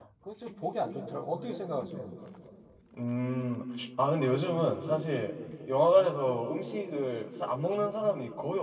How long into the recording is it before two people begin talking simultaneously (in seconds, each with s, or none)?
none